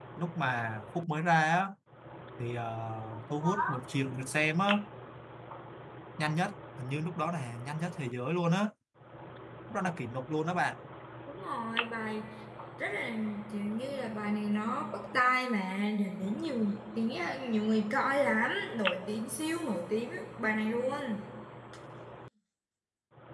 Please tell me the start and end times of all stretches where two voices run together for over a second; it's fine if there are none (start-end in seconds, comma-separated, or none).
none